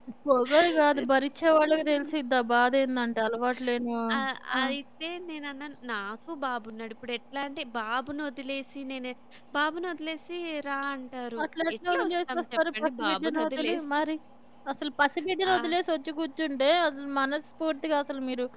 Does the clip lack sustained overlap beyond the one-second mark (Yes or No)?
No